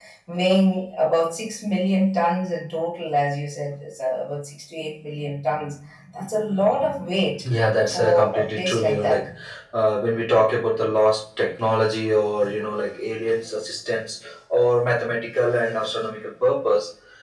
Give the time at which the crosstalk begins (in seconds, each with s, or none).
7.9 s